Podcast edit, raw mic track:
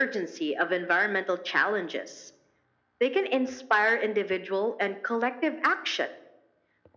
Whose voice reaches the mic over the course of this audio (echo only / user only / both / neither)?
echo only